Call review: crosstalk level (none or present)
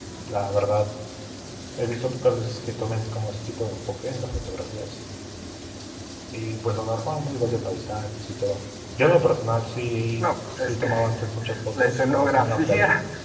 present